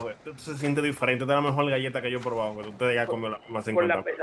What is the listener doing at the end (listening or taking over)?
taking over